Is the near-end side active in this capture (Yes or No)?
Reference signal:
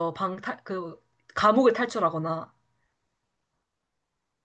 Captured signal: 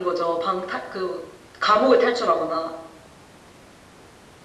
No